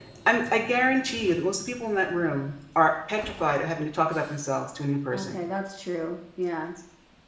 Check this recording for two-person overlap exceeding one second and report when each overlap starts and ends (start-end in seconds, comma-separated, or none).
none